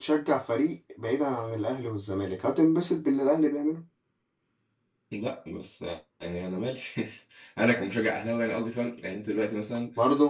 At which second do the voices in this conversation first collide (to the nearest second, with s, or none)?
none